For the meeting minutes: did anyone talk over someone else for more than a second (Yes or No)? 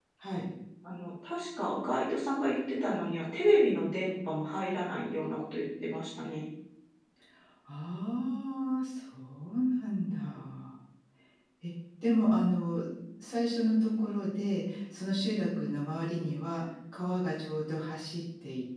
No